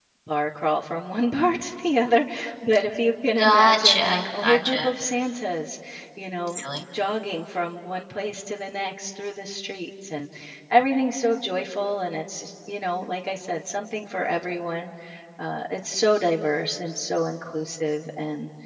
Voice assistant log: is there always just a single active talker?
No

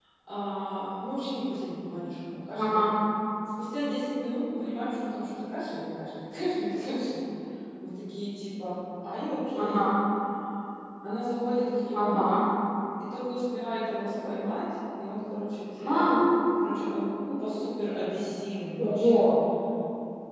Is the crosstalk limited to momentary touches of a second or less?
Yes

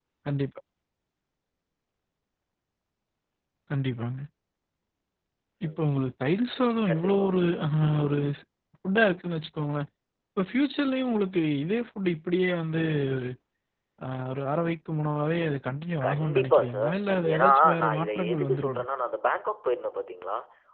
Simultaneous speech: Yes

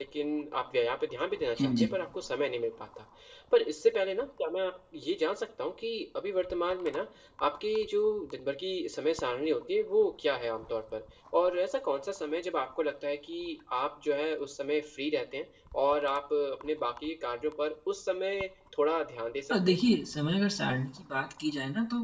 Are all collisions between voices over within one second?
Yes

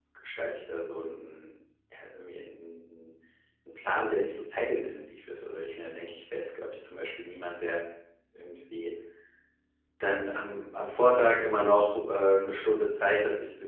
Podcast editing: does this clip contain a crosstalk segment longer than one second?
No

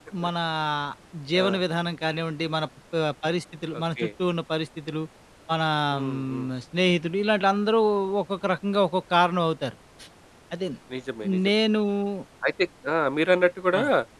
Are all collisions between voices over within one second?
Yes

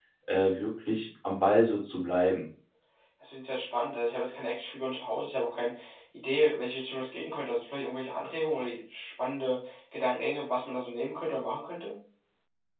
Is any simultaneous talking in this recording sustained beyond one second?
No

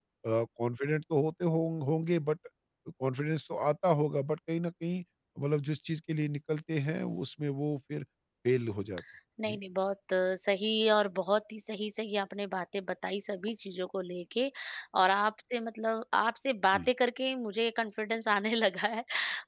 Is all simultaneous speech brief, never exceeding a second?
Yes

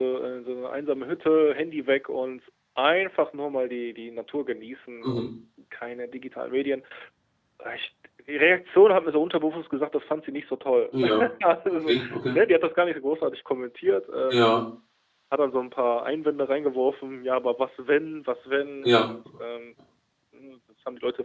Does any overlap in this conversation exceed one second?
No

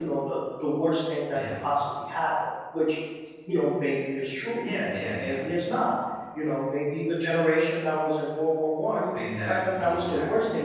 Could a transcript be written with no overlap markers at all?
No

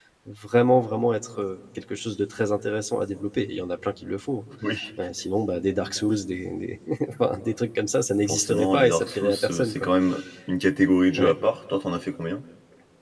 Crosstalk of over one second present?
Yes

